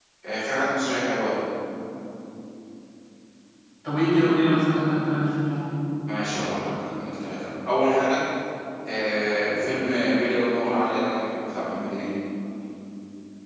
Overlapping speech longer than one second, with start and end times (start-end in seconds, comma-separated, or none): none